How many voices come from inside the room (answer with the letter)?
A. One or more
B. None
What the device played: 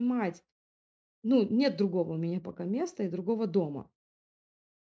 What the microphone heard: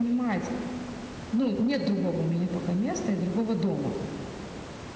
B